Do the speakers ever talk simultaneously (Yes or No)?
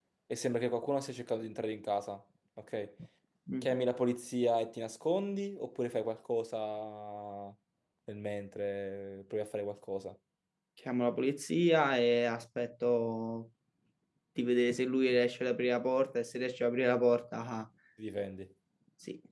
No